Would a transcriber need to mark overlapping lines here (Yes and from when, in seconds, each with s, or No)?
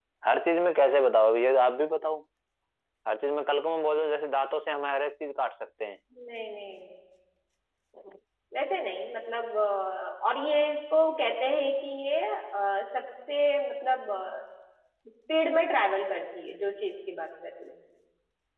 No